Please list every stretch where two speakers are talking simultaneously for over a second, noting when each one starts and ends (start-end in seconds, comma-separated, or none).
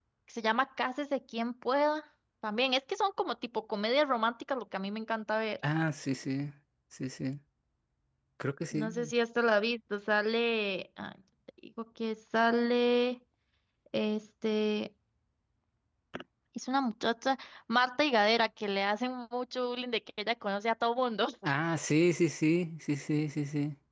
none